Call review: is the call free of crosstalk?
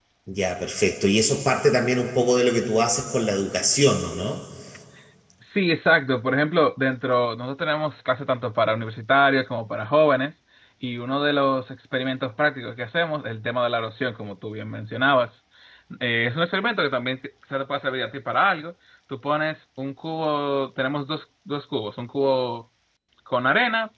Yes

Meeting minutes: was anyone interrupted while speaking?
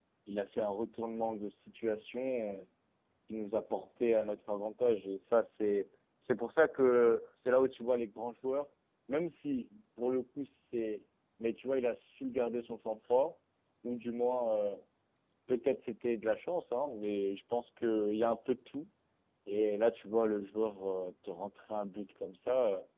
No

